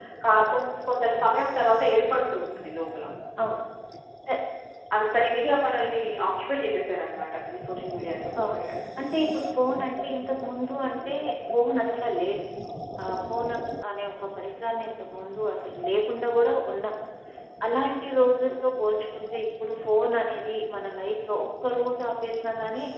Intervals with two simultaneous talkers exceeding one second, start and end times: none

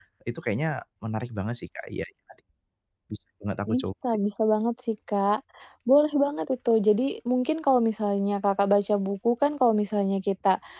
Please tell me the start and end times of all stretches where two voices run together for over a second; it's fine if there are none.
none

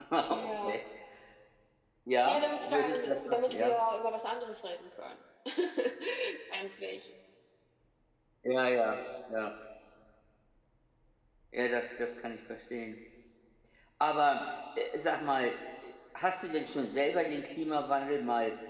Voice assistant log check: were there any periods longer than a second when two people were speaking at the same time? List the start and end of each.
2.2-3.8

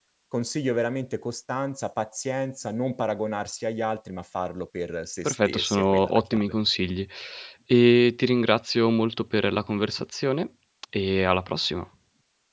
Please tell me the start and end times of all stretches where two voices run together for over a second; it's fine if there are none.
5.2-6.6

